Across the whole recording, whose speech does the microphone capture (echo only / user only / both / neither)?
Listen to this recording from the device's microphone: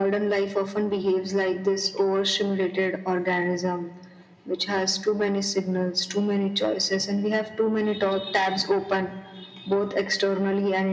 echo only